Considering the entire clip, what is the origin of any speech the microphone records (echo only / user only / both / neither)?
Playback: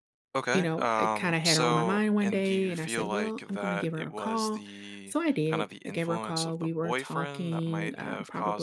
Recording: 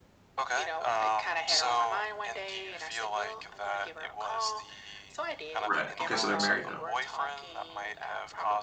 both